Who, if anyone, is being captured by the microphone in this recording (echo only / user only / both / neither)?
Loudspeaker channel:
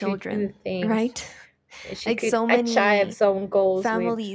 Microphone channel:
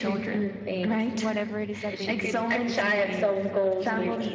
both